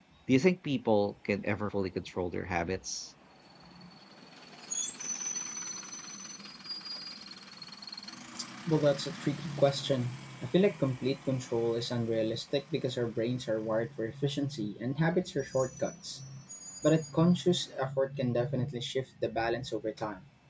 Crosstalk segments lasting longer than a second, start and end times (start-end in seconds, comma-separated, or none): none